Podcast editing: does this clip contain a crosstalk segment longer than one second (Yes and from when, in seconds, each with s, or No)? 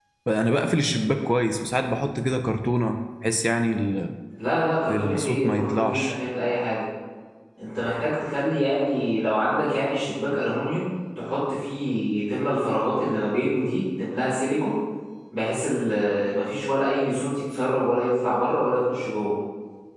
Yes, from 4.9 s